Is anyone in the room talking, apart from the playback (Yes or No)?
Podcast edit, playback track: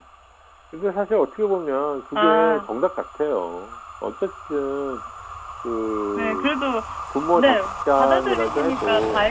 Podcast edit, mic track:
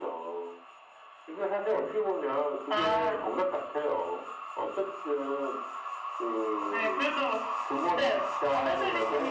No